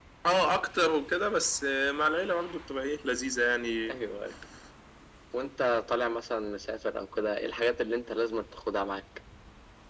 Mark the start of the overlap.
none

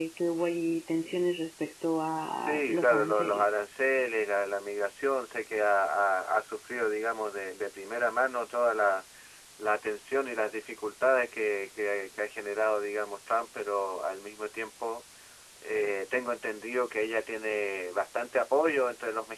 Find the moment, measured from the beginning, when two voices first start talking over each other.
2.2 s

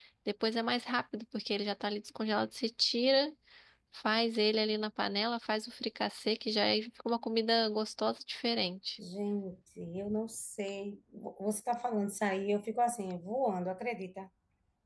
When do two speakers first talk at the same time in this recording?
none

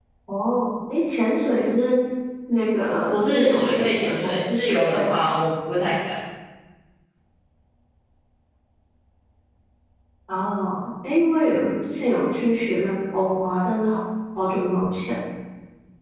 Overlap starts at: 3.1 s

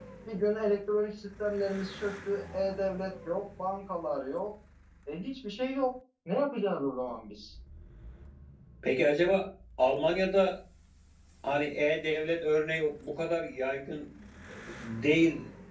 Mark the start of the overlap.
none

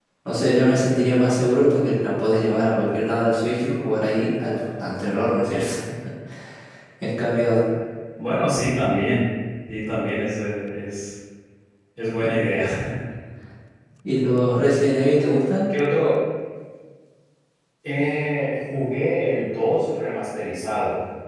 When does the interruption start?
none

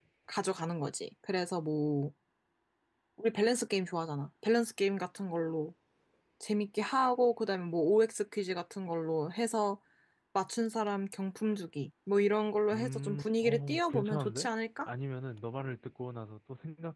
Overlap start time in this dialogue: 12.7 s

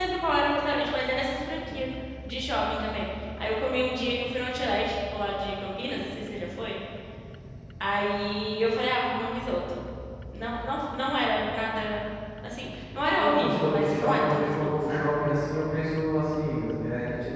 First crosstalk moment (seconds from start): 13.2 s

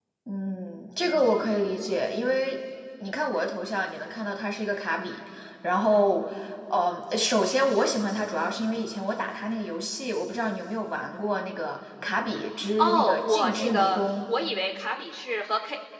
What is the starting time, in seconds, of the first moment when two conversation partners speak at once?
12.8 s

